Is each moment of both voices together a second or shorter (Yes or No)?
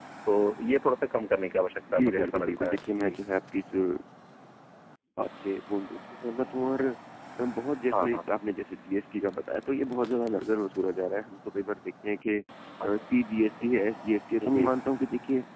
No